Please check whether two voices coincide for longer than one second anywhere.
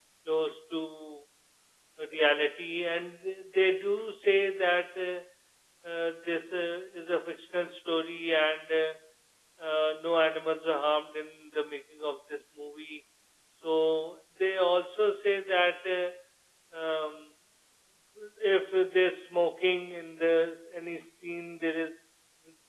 No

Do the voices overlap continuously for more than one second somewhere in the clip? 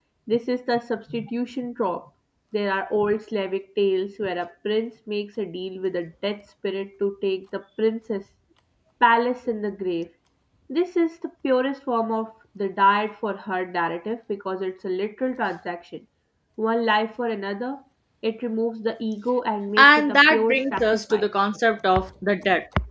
Yes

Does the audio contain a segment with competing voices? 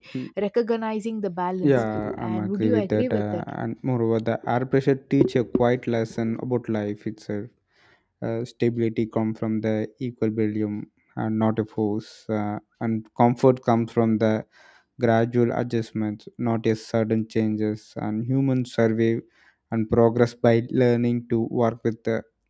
Yes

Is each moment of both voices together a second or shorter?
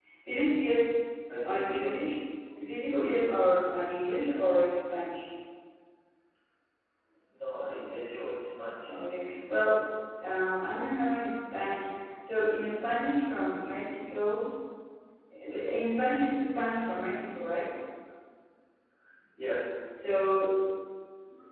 Yes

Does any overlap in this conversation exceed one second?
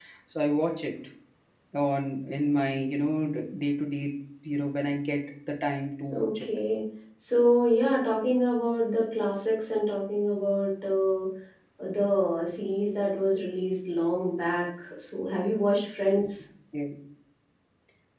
No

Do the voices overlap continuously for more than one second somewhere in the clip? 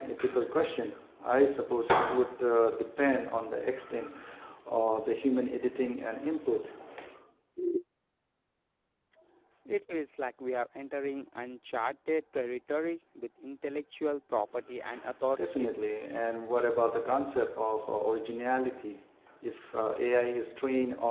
No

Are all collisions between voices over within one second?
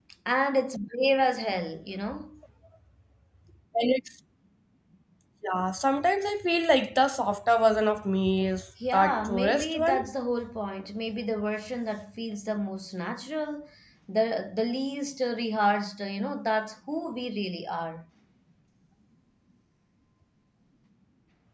No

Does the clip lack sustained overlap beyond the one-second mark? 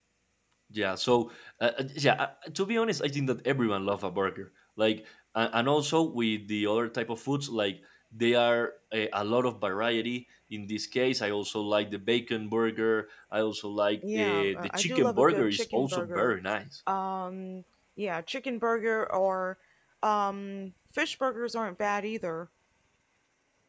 No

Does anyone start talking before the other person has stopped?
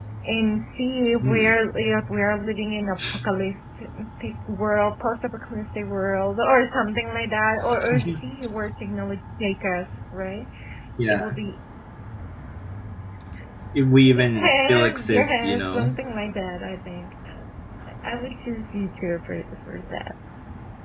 Yes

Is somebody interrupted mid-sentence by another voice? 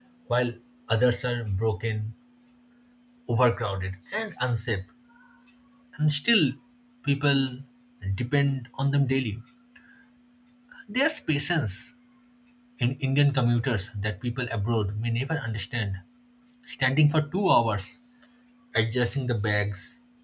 No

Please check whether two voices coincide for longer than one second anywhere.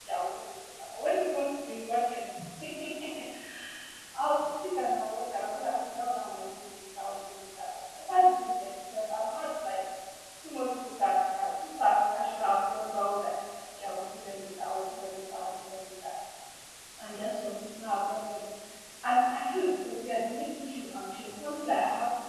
No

